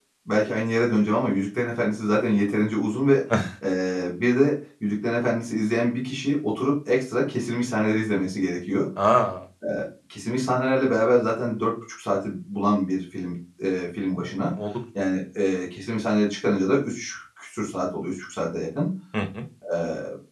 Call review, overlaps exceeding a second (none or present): none